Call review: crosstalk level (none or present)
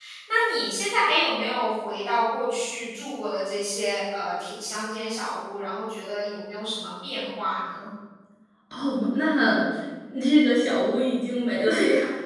none